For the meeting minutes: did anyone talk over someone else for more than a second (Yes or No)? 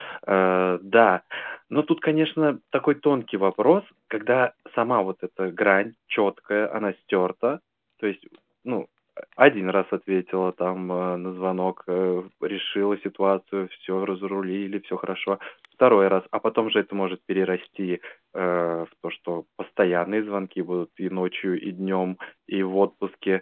No